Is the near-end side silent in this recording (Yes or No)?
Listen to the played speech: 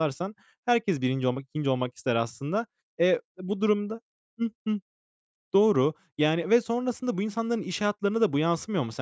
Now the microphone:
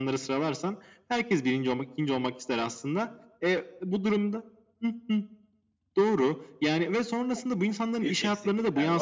No